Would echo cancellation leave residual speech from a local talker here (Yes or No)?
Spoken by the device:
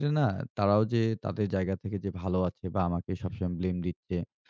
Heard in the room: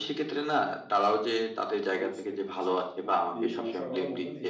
Yes